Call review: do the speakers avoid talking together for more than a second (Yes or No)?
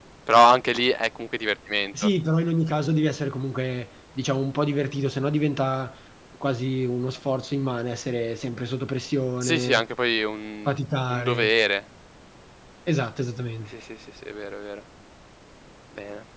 Yes